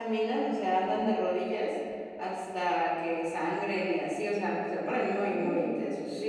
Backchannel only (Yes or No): Yes